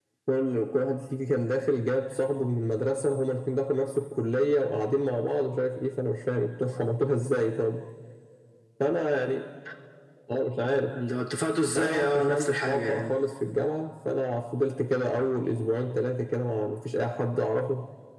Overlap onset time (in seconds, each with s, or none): 11.8 s